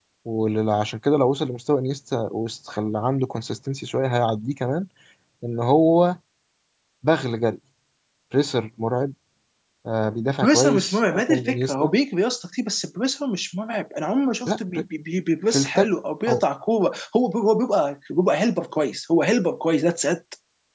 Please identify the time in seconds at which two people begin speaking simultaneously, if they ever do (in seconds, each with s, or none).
10.4 s